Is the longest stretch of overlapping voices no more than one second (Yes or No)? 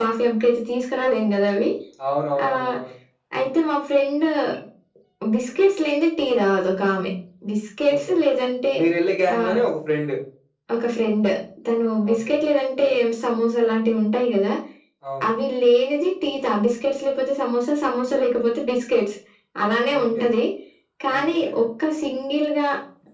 Yes